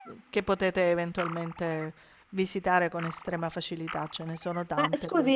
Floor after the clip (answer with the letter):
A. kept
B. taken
B